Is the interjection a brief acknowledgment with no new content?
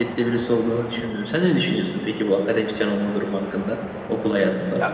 No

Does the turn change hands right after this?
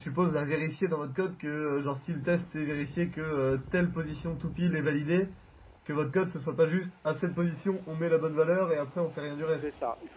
Yes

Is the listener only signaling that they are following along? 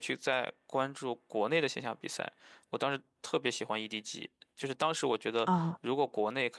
Yes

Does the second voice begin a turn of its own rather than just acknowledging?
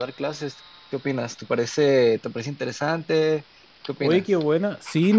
Yes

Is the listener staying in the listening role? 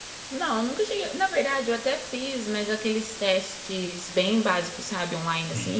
Yes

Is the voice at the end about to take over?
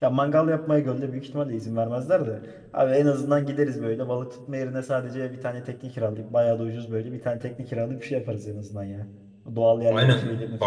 Yes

